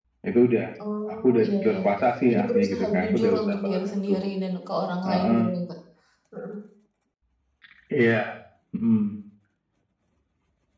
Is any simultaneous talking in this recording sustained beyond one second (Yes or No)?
Yes